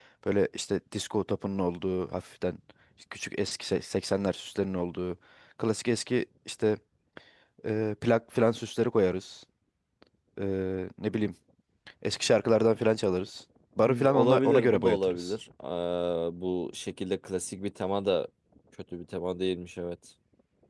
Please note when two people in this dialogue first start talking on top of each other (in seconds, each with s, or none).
13.8 s